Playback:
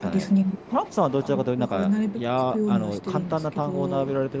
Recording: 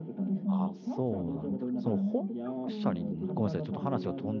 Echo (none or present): present